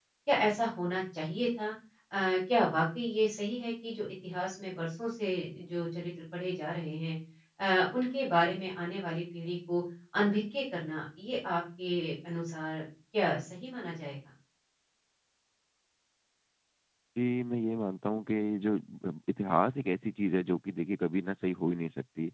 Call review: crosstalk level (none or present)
none